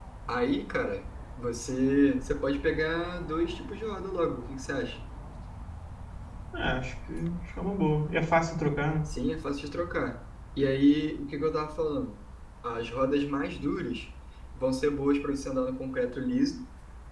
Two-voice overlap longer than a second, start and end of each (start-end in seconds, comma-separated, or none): none